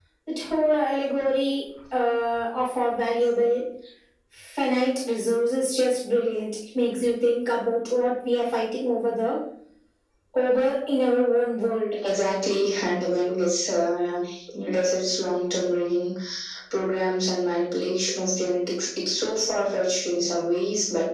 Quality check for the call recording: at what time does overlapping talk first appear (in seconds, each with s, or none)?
none